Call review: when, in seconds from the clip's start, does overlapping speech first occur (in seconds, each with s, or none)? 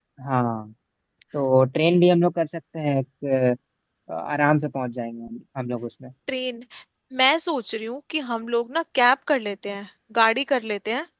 none